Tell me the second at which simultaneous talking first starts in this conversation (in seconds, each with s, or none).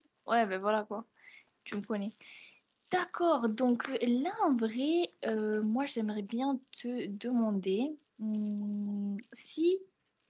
none